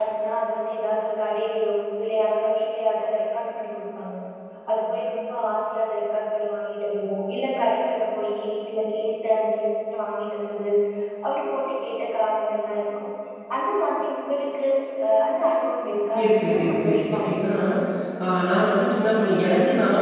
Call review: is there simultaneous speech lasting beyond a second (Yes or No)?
Yes